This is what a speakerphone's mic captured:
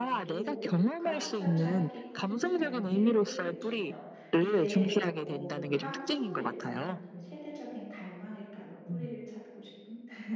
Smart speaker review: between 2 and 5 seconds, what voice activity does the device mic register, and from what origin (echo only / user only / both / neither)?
both